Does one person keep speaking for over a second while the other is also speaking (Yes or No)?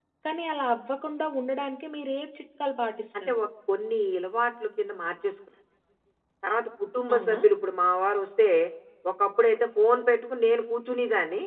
No